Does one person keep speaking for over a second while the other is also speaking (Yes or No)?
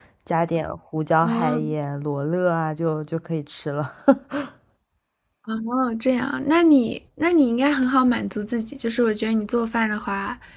No